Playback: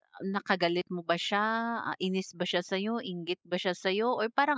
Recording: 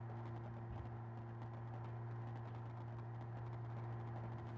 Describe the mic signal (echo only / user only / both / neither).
neither